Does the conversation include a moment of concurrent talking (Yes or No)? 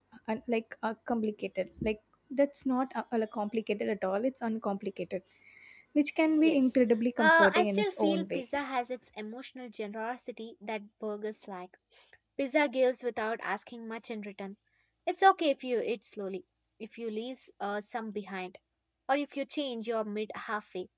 Yes